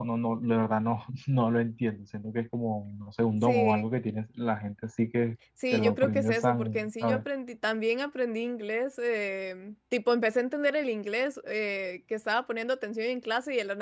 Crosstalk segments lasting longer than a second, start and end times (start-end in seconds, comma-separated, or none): 5.7-7.2